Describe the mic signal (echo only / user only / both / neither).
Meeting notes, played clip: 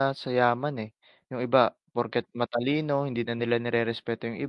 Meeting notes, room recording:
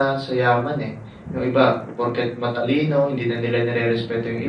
echo only